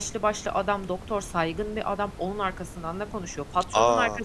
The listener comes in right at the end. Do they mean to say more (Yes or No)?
No